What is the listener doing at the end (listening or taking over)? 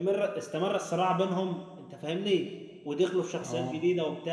listening